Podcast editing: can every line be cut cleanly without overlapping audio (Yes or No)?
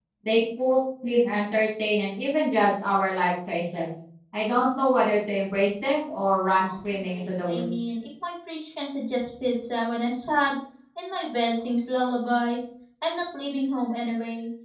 No